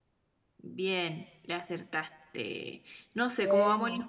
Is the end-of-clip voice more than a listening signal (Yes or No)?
No